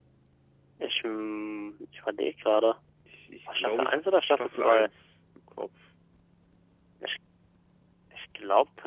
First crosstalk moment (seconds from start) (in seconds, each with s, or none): 3.6 s